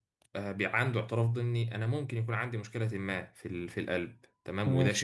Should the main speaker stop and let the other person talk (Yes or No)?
No